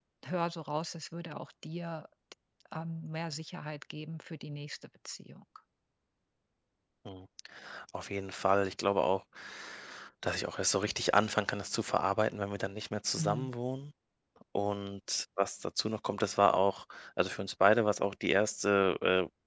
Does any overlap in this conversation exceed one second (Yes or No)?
No